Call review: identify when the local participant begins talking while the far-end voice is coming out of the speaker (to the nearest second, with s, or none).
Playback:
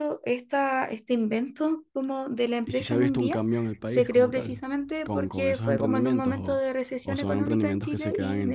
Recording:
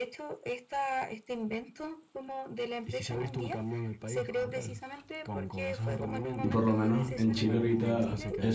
6 s